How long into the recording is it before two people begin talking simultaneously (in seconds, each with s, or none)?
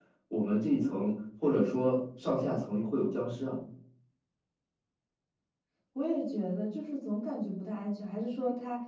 none